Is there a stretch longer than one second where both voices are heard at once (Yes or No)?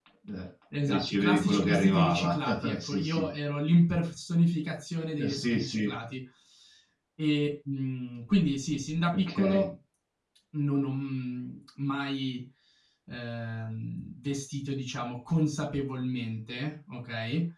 Yes